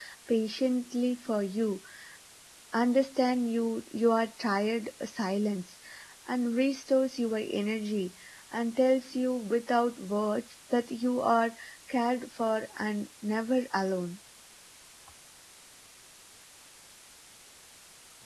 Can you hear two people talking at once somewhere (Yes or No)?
No